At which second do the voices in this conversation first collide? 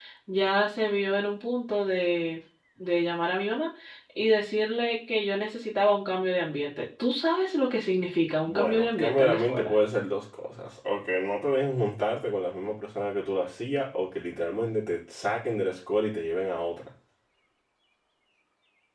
8.4 s

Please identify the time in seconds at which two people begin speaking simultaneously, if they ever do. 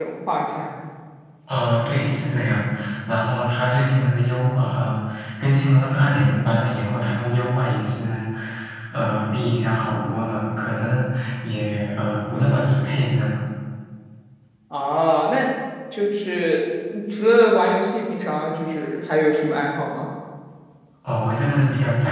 none

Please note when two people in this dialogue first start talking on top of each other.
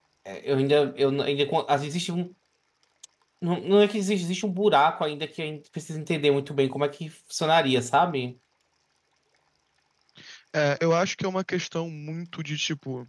none

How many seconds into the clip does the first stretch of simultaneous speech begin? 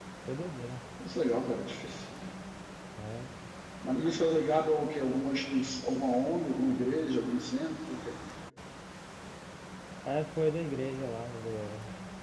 none

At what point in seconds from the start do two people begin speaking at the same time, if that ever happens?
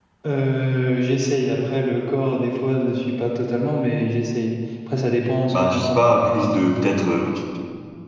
5.5 s

